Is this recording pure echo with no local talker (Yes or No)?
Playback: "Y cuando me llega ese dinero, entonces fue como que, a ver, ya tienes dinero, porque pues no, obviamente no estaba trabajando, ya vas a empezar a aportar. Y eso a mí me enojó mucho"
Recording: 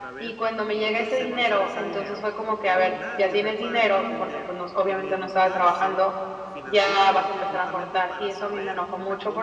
No